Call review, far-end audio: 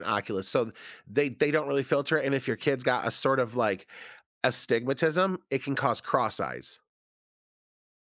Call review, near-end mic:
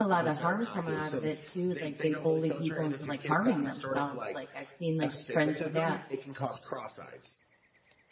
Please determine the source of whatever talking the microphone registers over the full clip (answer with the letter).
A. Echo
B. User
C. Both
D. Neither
C